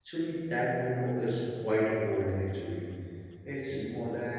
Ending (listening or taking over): listening